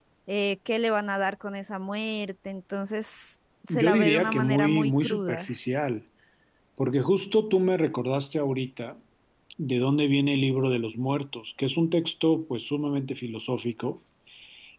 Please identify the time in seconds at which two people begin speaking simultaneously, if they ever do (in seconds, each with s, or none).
3.7 s